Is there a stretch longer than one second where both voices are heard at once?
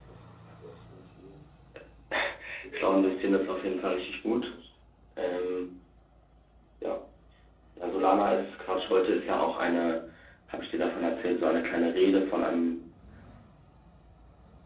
Yes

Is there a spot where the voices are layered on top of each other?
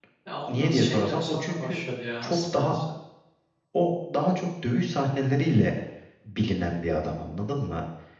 Yes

